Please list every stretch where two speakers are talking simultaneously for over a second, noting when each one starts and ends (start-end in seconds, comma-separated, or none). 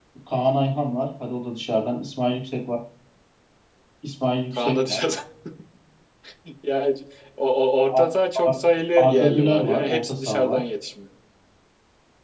9.0-10.6